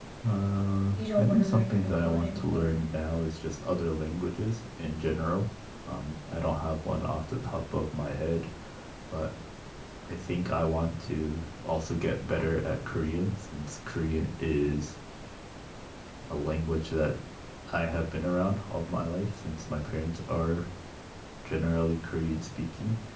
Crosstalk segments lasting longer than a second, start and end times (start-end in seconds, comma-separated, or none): 1.0-2.8